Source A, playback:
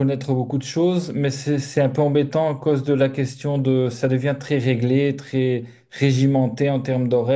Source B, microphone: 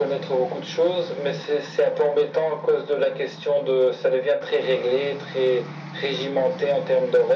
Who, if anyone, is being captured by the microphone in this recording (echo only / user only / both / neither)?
echo only